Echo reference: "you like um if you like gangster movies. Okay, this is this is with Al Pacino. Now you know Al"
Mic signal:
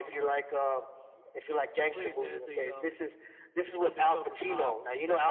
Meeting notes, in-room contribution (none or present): present